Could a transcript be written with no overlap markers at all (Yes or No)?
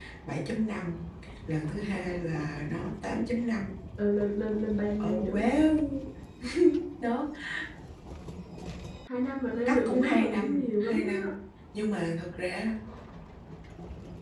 No